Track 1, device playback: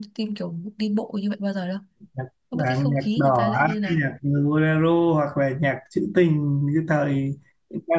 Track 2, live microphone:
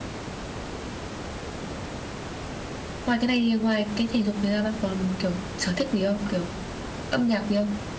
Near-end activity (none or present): present